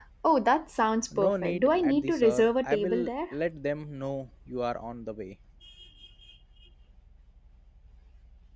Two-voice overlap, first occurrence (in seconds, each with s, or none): 1.2 s